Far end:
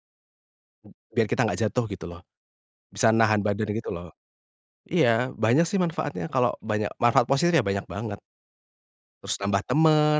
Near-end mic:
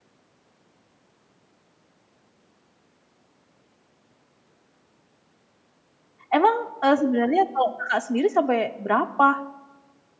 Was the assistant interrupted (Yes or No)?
Yes